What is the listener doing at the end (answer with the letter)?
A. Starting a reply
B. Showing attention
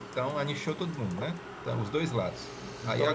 B